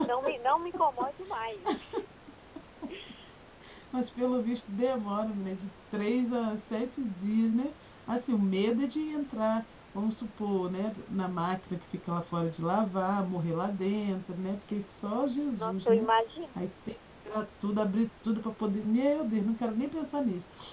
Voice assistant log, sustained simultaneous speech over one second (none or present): none